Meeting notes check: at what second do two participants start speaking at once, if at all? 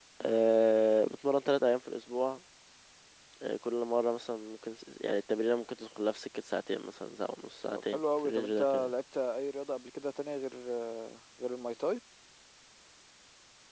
7.7 s

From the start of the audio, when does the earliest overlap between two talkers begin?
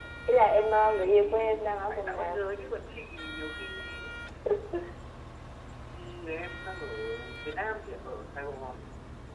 0.8 s

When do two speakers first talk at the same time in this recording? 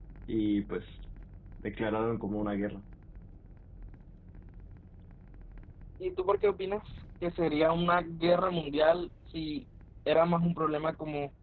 none

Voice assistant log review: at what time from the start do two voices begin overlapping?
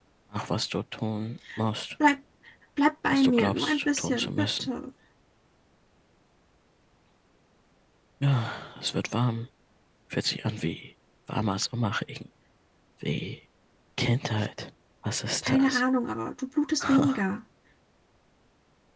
3.1 s

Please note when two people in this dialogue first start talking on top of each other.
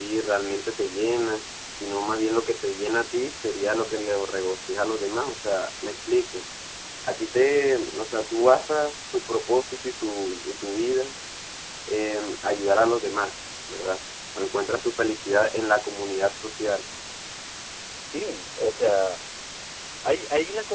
none

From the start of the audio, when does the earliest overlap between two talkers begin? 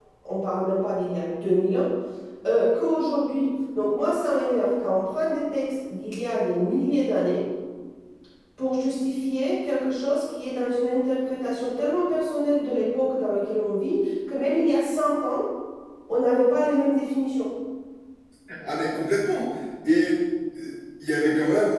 none

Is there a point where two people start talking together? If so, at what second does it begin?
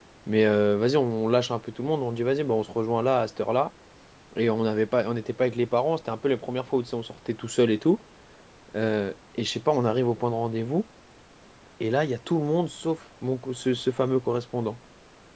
none

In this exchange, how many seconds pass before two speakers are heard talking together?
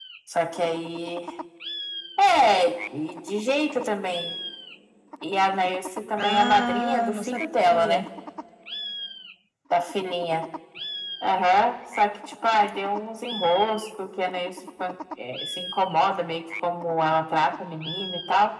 6.2 s

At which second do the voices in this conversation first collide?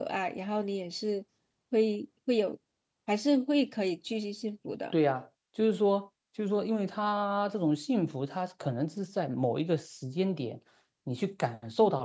none

